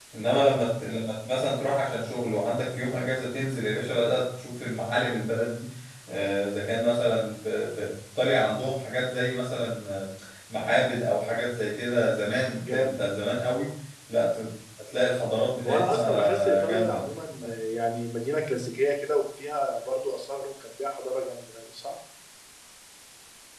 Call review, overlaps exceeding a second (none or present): present